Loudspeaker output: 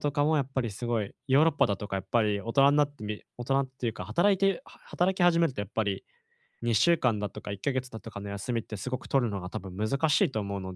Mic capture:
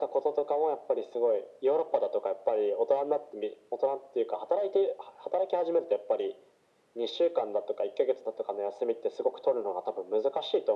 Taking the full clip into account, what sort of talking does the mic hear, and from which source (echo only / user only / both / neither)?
echo only